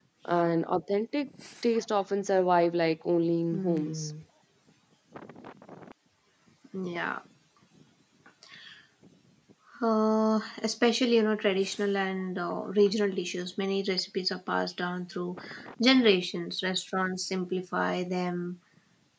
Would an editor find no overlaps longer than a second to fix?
Yes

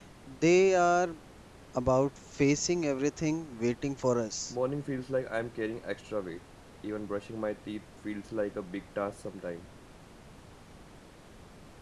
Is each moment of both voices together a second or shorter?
Yes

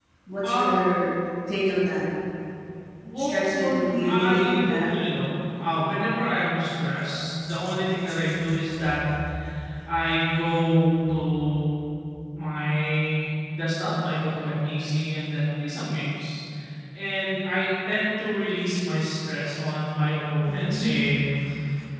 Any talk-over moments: Yes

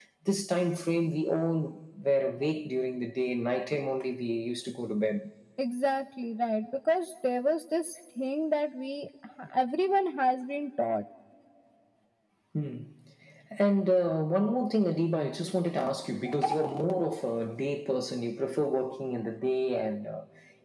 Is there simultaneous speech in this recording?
No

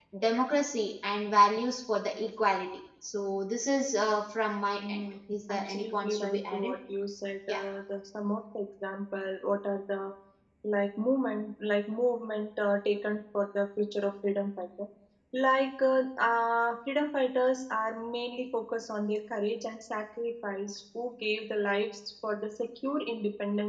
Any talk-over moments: Yes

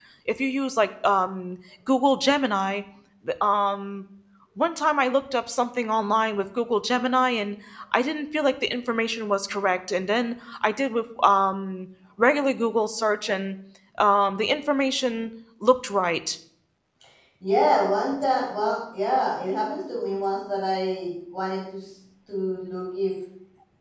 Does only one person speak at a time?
Yes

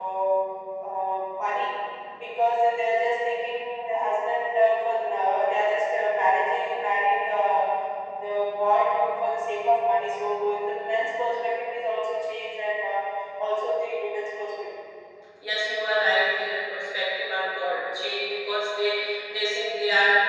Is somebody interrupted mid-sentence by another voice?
No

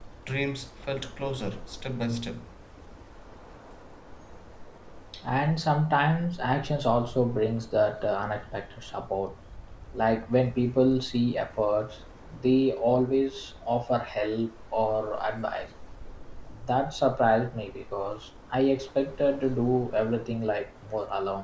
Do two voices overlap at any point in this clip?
No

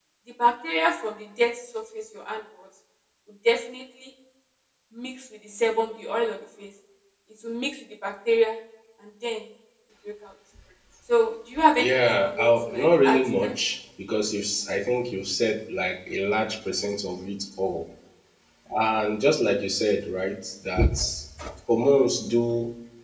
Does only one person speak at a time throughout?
No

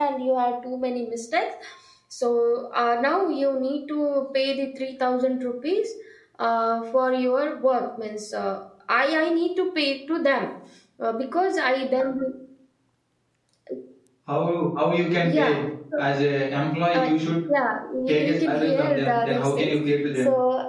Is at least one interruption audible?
Yes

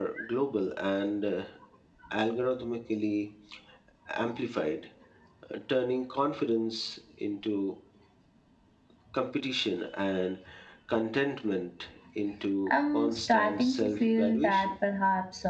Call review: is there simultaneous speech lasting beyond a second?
Yes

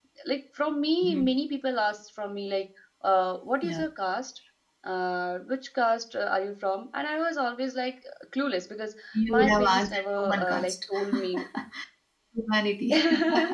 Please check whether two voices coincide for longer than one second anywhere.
Yes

